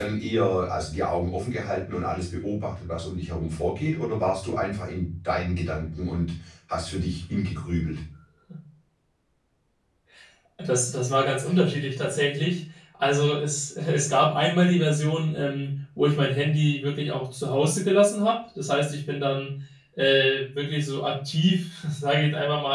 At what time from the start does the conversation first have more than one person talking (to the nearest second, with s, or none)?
none